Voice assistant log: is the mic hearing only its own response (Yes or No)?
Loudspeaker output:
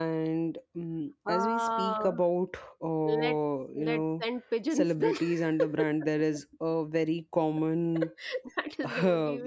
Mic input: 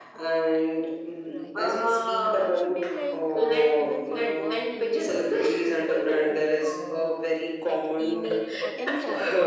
No